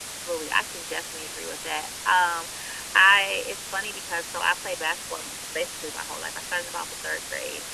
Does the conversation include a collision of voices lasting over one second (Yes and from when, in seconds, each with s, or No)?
No